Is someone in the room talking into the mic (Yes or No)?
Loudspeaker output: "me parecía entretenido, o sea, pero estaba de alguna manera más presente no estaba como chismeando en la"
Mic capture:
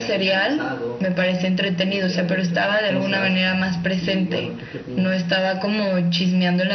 Yes